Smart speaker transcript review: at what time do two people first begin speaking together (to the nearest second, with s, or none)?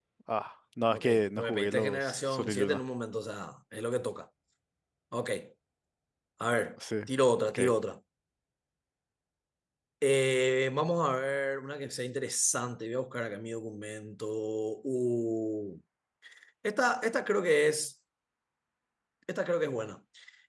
1 s